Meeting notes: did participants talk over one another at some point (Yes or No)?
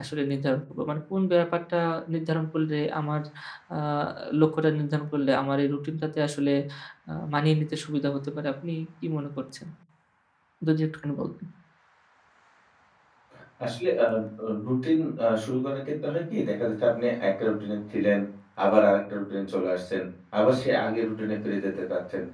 No